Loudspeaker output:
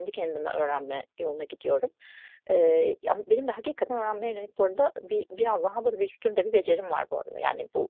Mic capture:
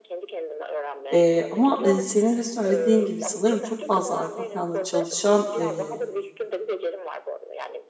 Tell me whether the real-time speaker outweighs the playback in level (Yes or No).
Yes